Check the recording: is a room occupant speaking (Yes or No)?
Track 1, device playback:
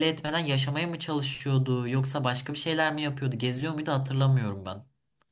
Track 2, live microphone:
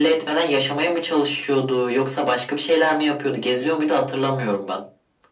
No